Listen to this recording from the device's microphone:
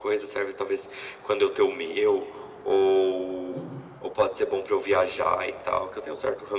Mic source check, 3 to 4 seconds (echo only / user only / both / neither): both